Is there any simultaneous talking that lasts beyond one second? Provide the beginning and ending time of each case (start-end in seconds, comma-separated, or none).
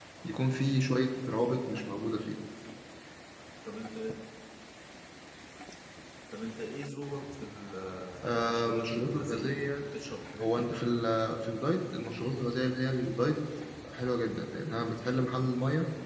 8.4-9.7